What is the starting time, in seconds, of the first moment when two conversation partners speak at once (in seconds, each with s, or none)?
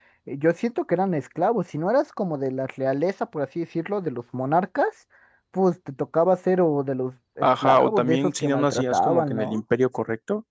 7.4 s